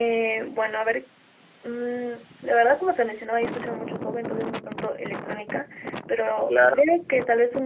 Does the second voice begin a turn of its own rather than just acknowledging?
No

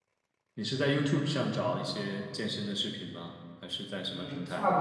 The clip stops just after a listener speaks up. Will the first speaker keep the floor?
No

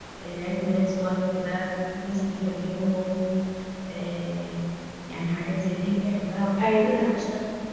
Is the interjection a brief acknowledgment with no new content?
Yes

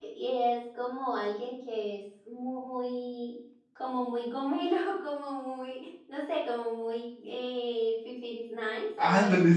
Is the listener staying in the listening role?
No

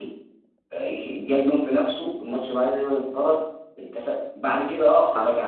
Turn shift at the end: No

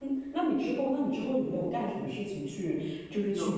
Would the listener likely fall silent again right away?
Yes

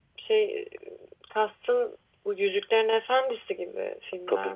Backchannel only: No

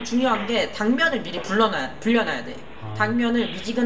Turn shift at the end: No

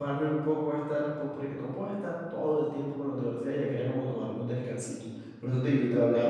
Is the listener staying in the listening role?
Yes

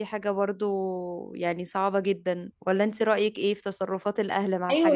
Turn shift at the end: Yes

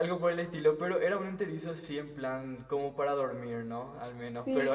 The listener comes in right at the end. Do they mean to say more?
Yes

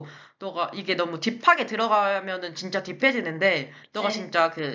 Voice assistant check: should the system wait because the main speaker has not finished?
Yes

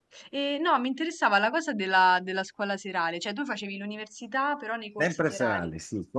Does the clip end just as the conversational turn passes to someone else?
Yes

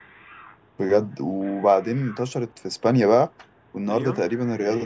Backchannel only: Yes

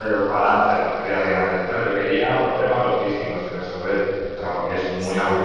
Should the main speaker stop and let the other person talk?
No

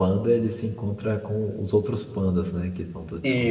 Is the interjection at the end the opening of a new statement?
Yes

